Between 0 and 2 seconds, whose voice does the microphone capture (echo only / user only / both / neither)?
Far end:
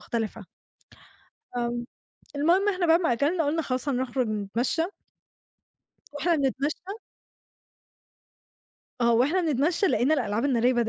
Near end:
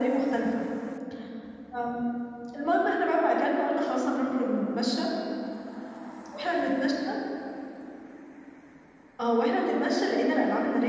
echo only